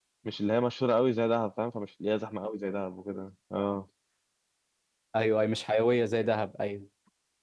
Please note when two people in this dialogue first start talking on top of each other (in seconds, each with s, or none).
none